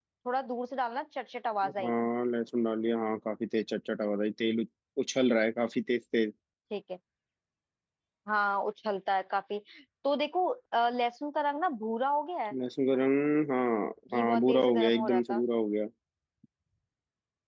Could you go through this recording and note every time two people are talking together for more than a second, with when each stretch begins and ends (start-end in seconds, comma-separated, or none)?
14.1-15.4